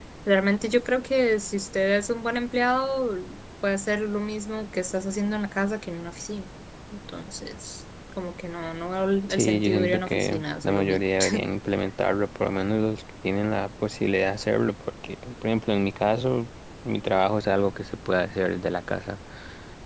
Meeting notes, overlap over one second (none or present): present